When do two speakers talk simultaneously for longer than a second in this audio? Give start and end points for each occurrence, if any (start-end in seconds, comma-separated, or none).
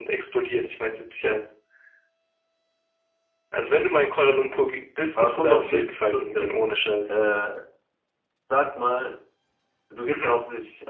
5.2-6.5